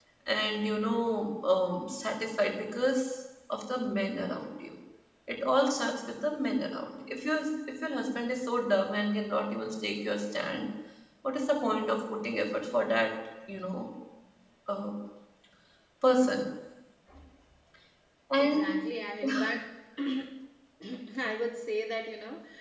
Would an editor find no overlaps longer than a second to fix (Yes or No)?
Yes